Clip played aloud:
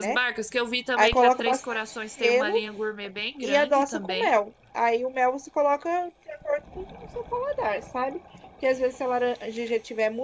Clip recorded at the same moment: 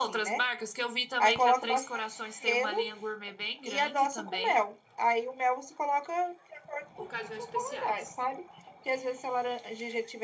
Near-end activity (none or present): present